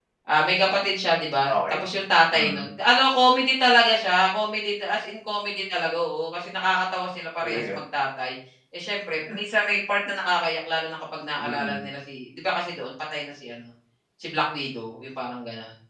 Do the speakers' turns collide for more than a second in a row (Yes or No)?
No